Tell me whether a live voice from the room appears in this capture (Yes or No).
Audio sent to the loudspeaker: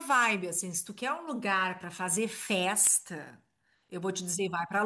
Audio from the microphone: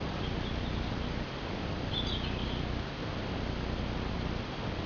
No